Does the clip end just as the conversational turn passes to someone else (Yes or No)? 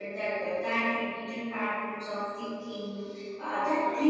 No